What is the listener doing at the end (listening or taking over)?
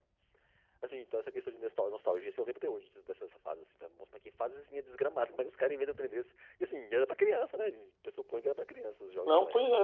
taking over